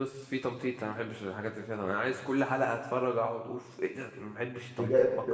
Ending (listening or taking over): taking over